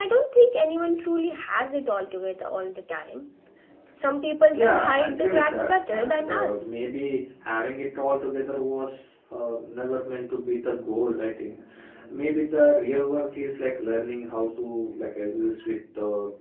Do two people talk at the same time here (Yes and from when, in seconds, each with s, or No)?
Yes, from 4.5 s